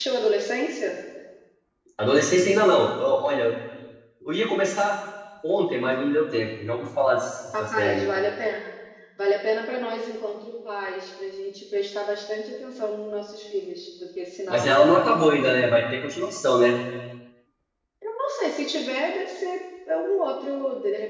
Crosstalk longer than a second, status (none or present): none